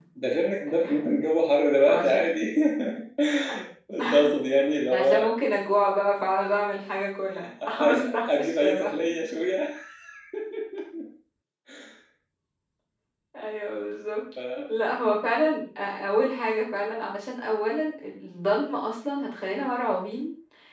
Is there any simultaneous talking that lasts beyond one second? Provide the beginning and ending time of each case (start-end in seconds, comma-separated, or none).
7.4-8.9